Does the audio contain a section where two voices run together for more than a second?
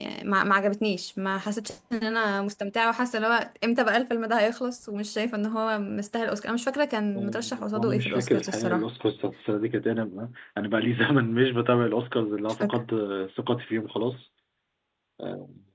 Yes, from 7.2 s

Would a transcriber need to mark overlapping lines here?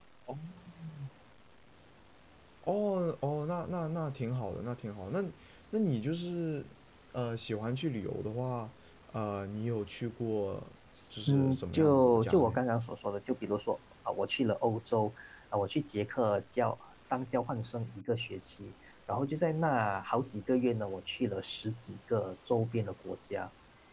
Yes, from 11.3 s

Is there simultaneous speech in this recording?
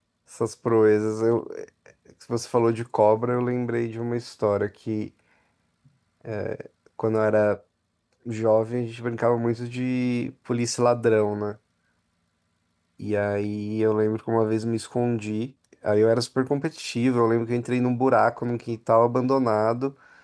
No

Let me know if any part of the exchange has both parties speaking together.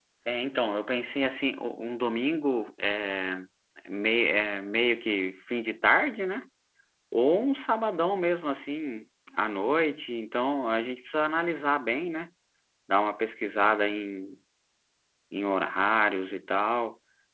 No

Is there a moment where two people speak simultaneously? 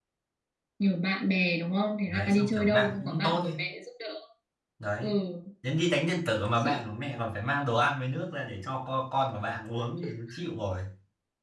Yes, from 2.1 s

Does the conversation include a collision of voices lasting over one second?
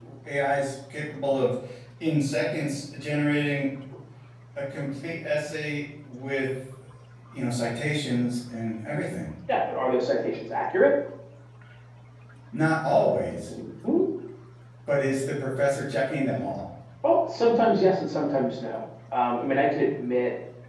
No

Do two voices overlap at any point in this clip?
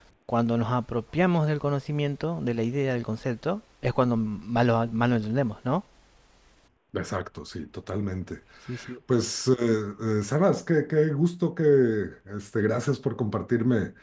No

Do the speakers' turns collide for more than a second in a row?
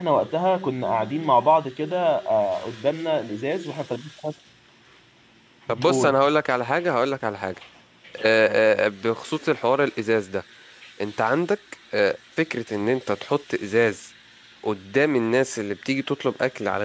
No

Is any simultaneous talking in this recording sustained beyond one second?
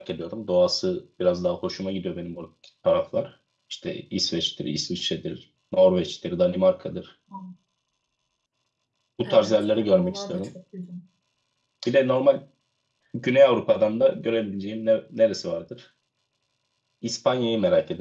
Yes, from 9.2 s

